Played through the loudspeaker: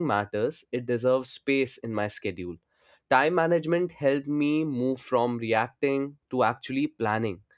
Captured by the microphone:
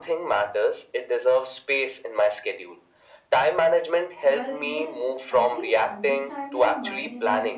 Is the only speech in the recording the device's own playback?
No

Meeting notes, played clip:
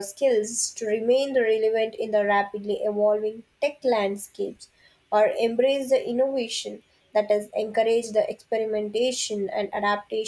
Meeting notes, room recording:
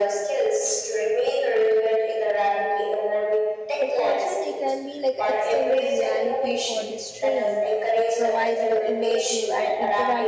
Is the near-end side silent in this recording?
No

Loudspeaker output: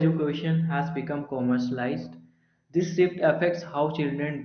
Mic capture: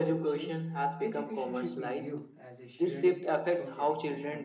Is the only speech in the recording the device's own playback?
No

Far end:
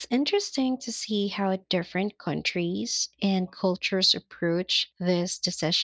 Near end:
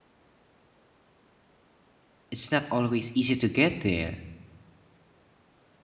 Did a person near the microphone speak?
Yes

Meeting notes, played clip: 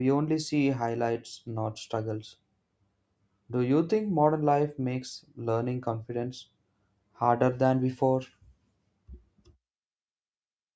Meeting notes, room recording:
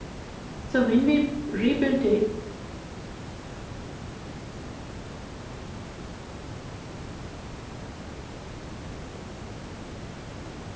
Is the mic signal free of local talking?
No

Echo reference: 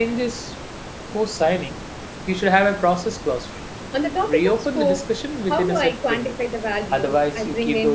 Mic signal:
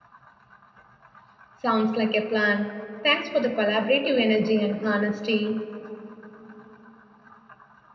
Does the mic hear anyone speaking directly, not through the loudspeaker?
Yes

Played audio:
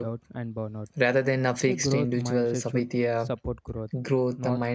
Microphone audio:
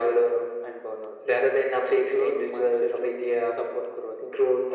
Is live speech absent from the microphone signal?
Yes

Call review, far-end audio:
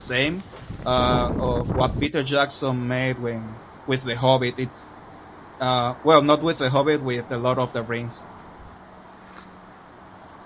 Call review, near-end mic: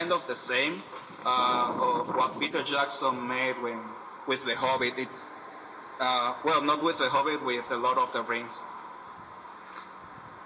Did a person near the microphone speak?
No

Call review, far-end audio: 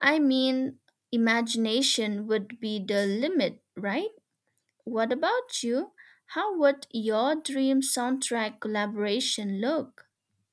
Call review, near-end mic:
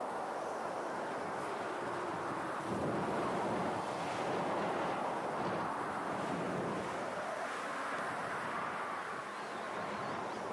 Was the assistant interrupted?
No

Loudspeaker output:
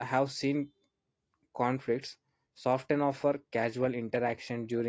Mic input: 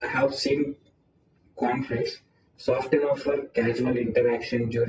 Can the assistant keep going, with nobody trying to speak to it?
Yes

